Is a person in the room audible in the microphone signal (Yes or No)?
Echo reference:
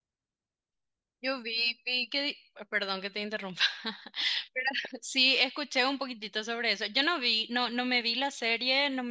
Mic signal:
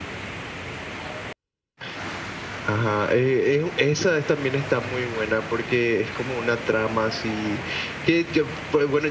Yes